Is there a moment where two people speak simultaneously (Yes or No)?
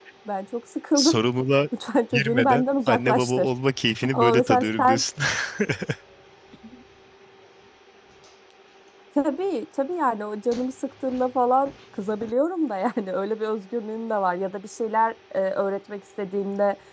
Yes